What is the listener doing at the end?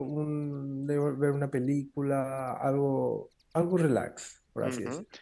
taking over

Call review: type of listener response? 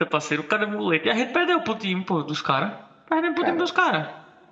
listening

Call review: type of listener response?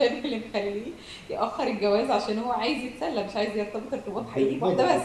taking over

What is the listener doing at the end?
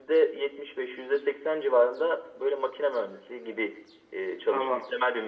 taking over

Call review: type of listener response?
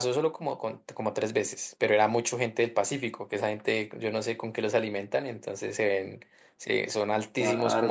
listening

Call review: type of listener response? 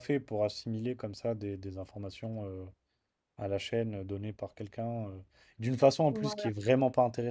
listening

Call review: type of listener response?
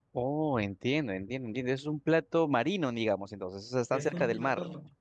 taking over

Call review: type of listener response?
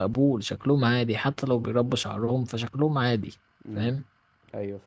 taking over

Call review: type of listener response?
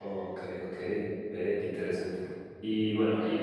listening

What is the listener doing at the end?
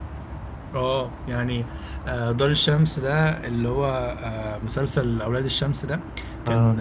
listening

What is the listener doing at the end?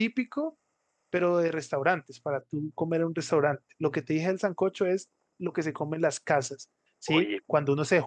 listening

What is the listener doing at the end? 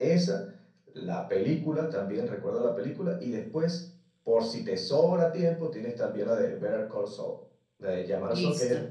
listening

